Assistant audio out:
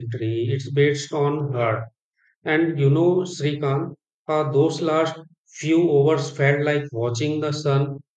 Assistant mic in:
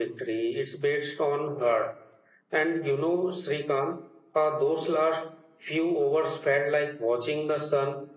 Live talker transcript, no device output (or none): none